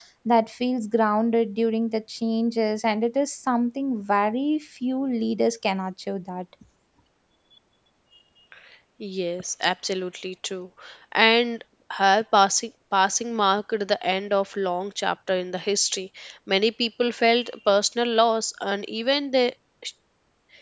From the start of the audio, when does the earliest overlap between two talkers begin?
none

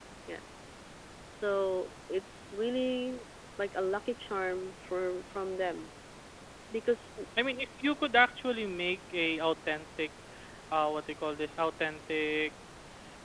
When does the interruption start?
none

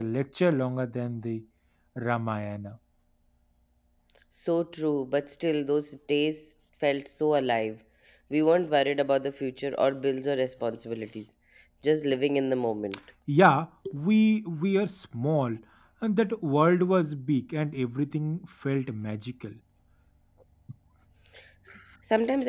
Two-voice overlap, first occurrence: none

